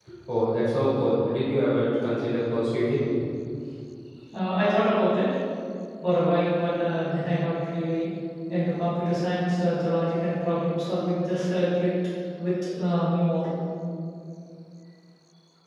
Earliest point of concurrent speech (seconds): none

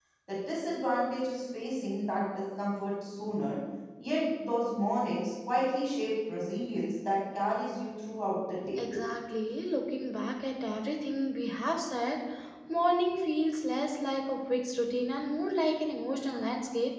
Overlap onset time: none

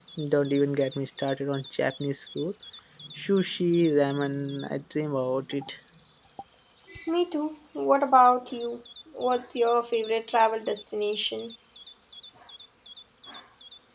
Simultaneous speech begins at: none

